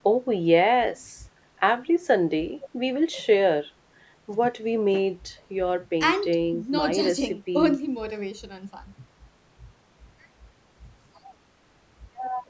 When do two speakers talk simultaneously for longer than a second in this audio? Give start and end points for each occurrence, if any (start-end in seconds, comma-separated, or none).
6.0-7.8